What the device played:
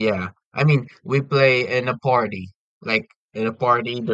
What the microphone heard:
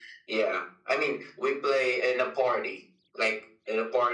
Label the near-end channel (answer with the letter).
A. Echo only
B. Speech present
A